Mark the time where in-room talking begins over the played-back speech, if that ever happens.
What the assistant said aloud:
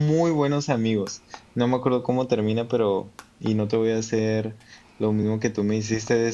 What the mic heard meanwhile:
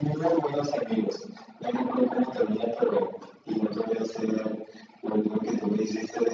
none

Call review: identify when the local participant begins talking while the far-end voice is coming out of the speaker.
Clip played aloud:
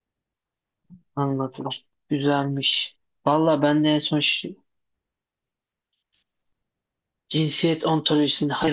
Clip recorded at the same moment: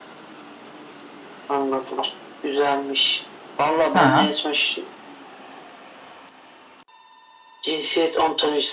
4 s

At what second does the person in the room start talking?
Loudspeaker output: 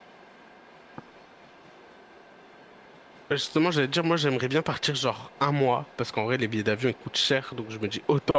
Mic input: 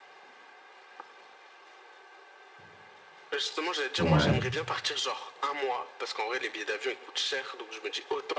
4 s

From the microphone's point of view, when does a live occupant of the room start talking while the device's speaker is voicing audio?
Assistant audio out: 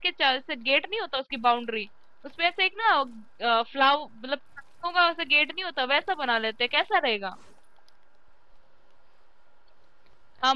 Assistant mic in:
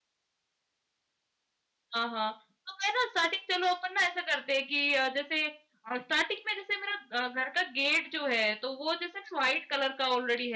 2 s

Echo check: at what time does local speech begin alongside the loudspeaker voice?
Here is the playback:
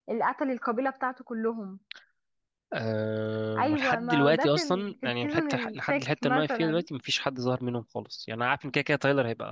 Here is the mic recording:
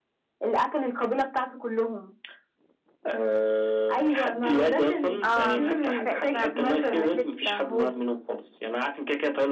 5 s

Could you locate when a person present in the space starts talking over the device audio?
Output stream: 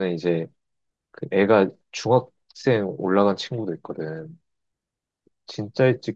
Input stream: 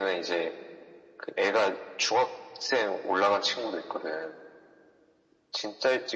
none

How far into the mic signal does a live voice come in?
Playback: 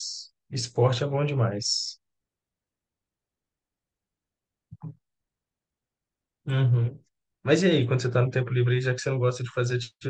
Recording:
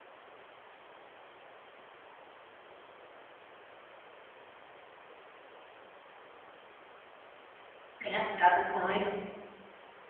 8 s

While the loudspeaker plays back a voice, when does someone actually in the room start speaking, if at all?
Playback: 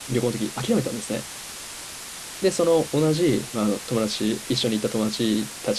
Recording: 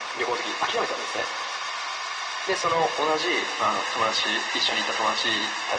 none

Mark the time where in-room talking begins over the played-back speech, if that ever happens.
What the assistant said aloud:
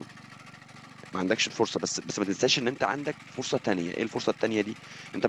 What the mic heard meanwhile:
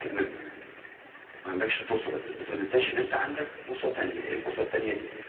none

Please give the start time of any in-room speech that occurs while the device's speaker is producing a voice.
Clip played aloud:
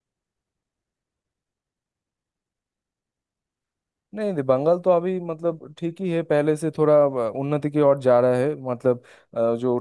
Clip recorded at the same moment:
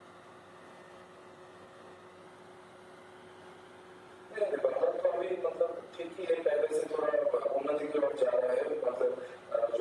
none

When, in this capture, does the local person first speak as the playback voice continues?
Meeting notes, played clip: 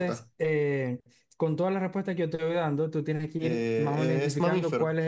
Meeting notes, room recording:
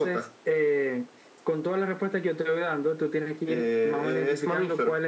none

